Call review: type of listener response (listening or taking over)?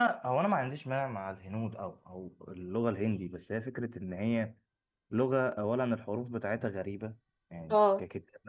listening